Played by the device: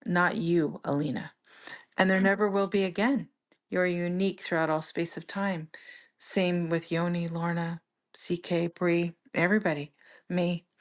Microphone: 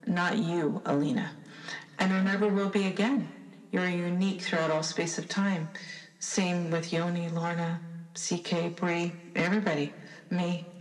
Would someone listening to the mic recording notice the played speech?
Yes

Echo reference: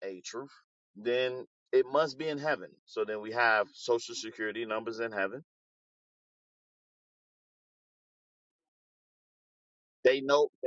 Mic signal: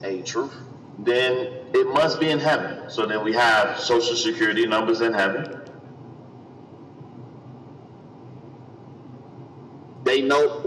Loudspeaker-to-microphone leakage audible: Yes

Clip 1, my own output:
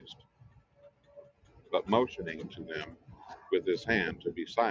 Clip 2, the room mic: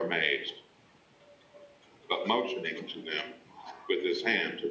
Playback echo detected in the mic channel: Yes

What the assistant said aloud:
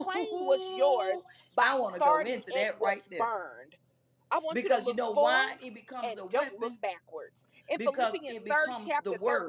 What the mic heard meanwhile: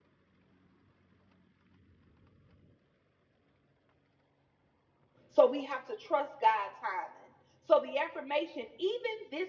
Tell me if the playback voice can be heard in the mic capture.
No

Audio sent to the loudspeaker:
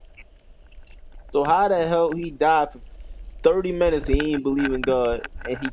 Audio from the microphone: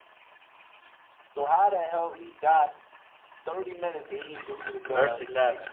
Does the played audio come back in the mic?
Yes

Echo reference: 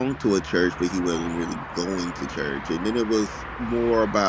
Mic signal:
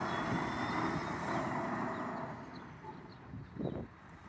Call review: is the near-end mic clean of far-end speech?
Yes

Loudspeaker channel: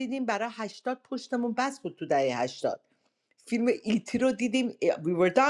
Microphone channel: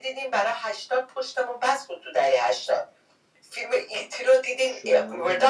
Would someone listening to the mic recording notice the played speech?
Yes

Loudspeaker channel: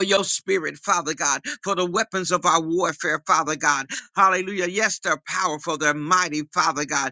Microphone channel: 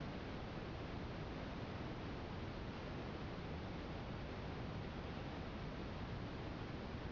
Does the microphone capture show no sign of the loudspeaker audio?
Yes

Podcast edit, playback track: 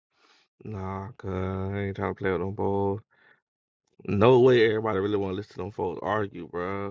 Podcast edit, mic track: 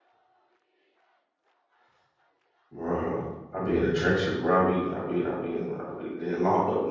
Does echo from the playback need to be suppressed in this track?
No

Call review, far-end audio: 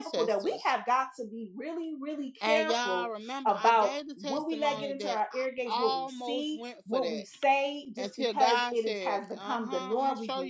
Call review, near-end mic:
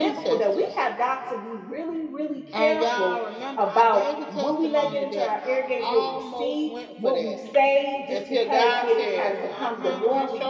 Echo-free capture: No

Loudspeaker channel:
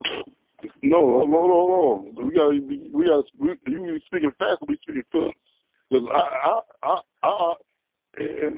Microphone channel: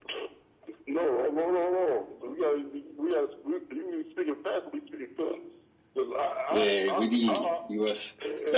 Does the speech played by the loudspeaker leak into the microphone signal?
Yes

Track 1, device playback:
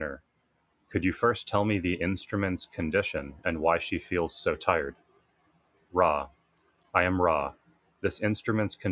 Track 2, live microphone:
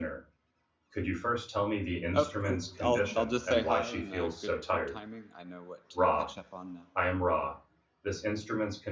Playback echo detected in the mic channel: Yes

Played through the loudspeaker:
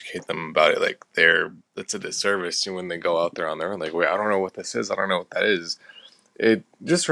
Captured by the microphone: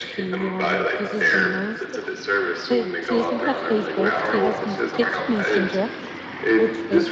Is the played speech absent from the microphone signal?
No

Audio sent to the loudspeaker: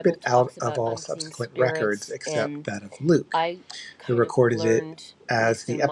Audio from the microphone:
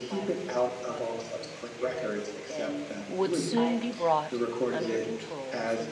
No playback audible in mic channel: No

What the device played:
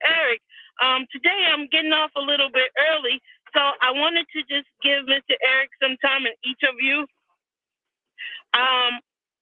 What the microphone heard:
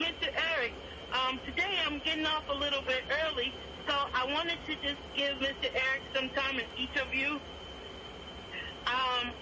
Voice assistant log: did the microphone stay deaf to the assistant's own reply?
No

